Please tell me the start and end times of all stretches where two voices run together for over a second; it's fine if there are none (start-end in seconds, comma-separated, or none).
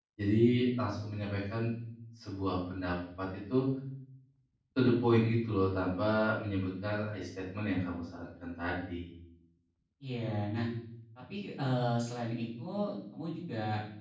none